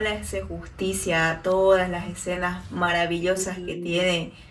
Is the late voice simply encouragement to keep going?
Yes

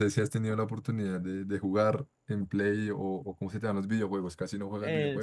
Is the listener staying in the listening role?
No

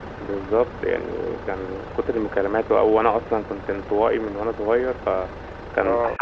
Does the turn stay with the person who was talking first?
Yes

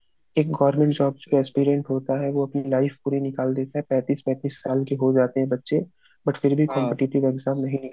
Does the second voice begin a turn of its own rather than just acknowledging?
No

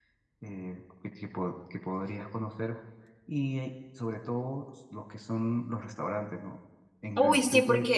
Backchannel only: No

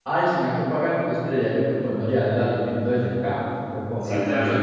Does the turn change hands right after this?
Yes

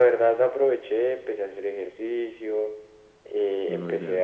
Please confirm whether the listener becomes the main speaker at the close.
No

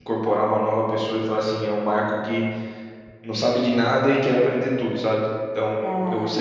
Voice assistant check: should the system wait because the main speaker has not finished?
Yes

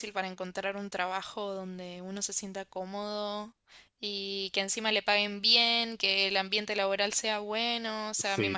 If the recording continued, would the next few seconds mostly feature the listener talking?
No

